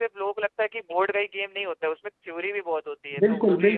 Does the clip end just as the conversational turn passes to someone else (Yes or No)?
Yes